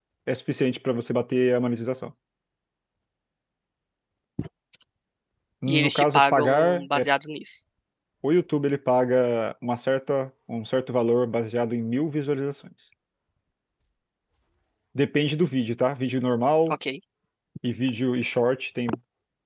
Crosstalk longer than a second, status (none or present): present